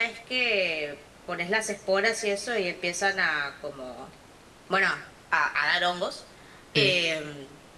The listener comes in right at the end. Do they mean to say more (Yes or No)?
No